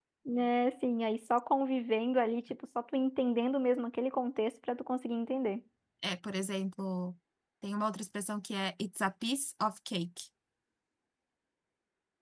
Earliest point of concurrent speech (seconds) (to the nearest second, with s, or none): none